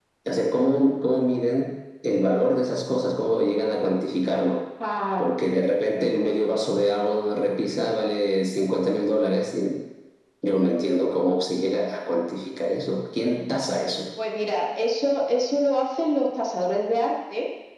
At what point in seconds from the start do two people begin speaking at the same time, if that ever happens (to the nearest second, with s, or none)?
none